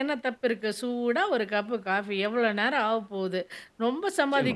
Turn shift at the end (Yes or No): No